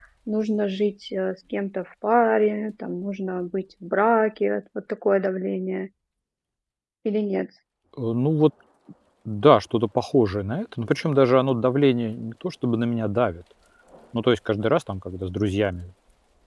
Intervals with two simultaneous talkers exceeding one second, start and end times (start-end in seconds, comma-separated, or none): none